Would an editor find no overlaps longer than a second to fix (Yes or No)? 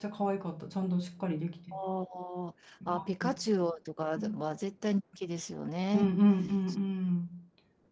Yes